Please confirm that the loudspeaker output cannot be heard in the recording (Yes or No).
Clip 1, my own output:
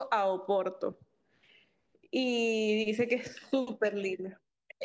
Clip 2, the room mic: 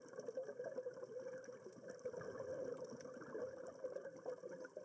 Yes